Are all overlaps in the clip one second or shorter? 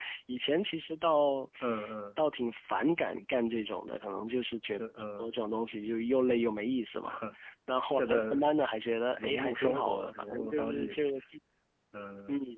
No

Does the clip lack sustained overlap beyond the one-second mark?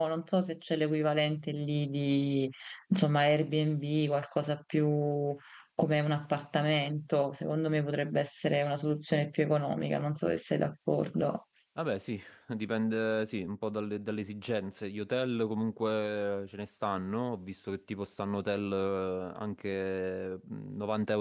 Yes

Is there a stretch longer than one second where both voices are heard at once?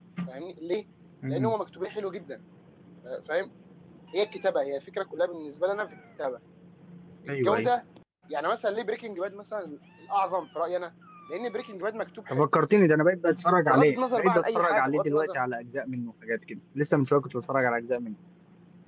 Yes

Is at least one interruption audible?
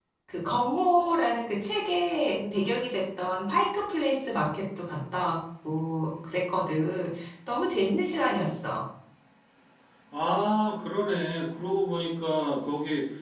No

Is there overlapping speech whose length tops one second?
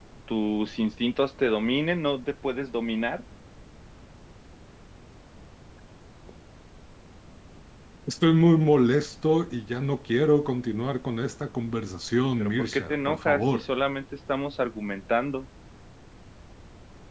Yes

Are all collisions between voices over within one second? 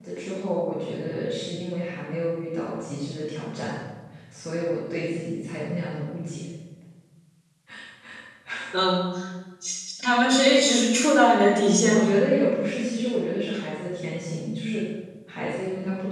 Yes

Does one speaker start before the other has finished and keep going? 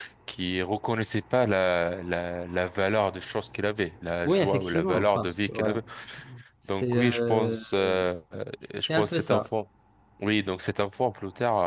Yes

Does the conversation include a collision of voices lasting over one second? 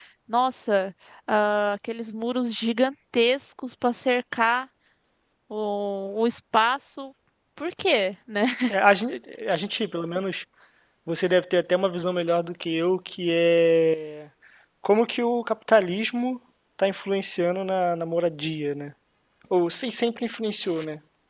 No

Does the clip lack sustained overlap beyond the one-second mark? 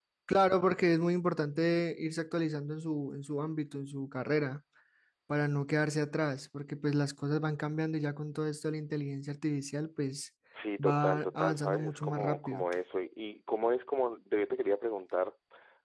No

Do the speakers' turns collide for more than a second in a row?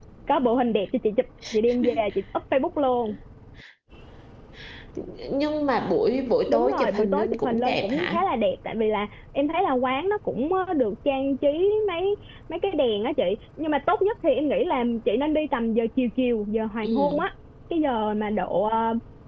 Yes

